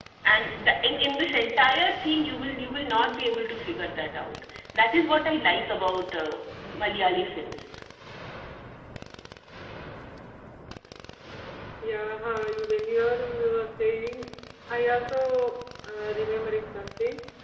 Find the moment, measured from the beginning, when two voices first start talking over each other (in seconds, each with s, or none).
none